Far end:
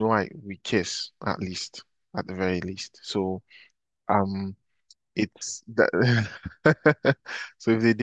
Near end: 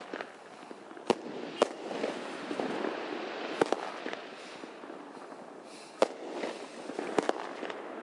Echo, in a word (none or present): none